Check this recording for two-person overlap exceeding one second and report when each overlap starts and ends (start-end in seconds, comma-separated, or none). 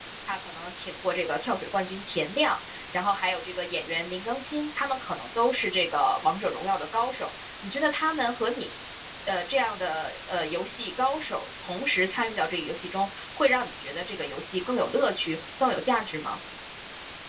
none